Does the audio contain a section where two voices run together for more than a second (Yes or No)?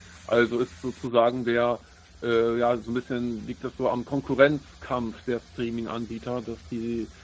No